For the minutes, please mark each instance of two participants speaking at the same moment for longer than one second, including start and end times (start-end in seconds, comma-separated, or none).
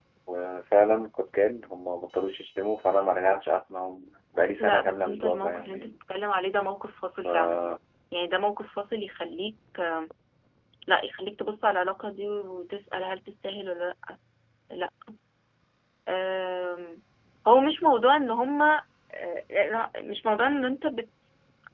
4.6-5.9